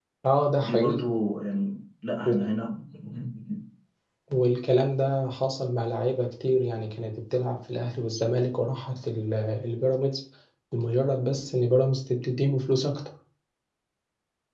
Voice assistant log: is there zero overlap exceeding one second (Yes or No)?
Yes